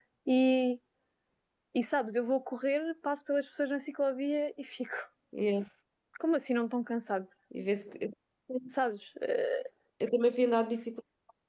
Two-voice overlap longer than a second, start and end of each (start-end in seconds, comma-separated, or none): none